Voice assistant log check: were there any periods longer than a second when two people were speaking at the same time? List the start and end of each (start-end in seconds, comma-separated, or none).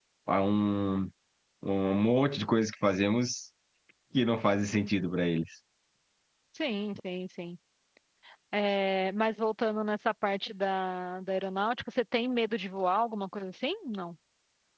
none